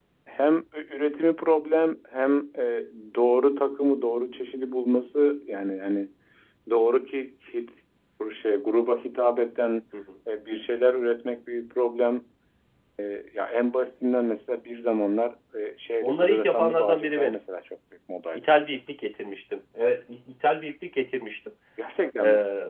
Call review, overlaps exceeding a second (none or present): present